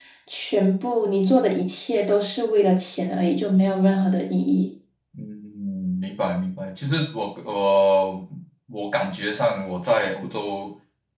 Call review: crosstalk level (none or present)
none